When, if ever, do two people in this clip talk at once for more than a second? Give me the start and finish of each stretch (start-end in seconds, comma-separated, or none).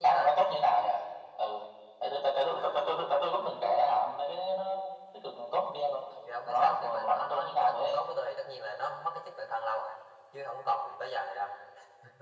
6.4-8.0